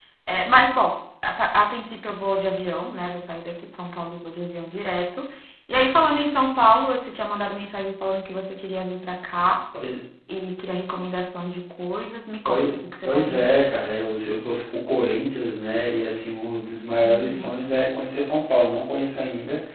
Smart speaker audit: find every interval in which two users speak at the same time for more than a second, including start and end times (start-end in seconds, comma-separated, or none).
12.4-13.7